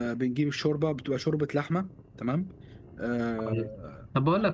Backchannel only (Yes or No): No